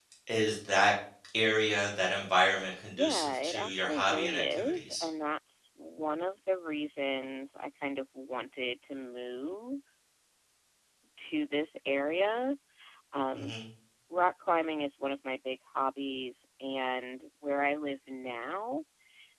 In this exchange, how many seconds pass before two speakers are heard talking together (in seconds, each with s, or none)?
2.9 s